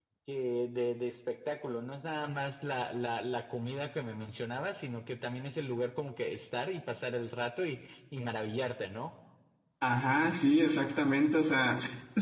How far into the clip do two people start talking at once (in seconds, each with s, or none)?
none